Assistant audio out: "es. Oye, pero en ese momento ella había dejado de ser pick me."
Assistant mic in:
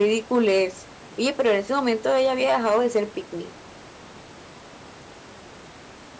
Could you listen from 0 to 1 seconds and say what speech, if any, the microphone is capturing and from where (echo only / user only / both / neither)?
echo only